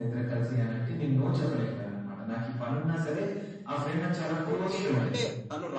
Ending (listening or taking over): taking over